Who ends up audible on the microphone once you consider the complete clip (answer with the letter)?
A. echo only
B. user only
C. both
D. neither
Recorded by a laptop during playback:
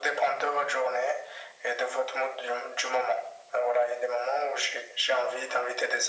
A